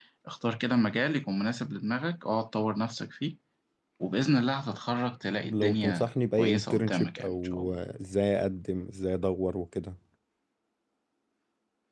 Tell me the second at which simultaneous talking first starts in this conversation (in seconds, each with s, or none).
5.4 s